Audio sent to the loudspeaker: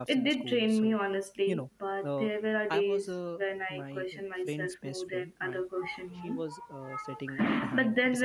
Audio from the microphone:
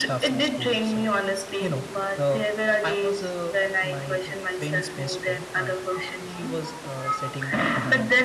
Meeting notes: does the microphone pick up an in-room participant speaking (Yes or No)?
No